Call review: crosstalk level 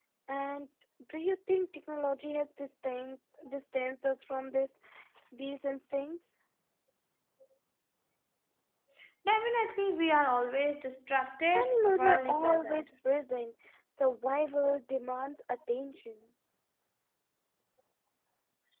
present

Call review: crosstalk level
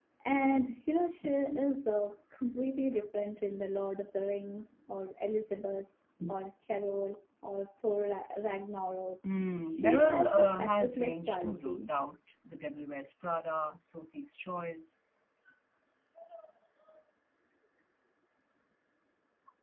present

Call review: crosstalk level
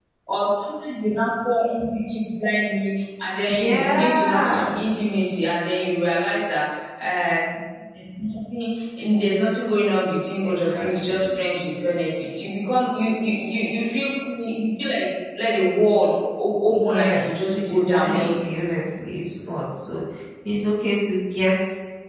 present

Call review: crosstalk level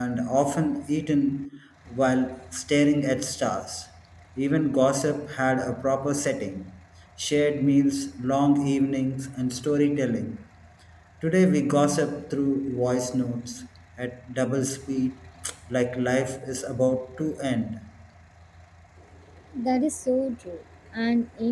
none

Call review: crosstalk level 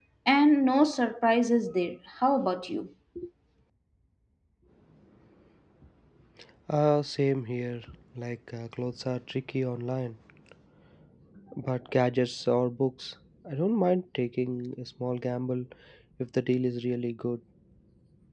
none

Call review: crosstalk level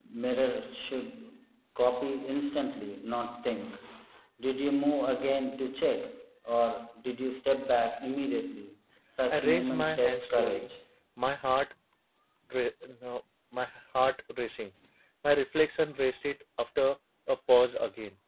present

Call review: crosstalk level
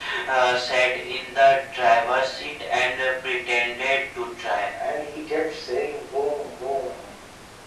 none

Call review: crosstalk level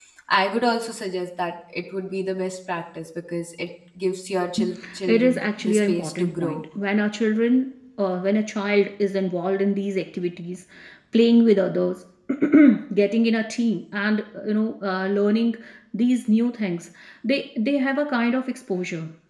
present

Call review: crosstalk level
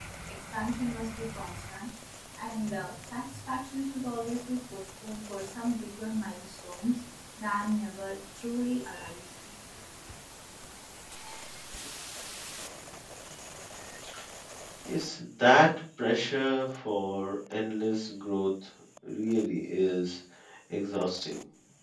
none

